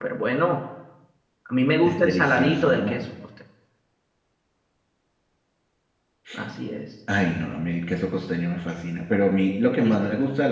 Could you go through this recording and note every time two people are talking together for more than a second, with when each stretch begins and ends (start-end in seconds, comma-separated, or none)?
1.8-3.1